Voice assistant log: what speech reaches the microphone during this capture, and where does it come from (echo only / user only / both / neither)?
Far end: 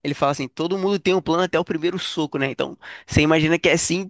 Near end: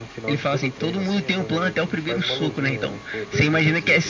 both